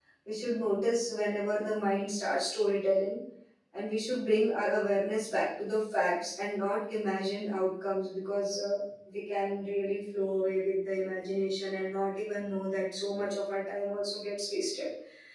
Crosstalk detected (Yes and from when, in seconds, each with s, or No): No